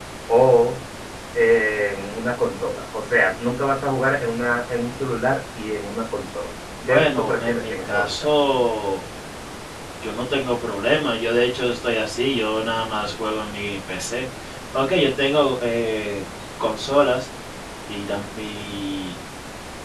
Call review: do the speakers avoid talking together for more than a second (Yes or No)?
No